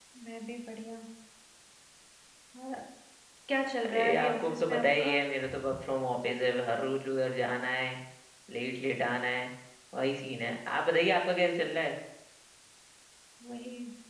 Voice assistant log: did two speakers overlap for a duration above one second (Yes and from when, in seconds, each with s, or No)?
Yes, from 3.8 s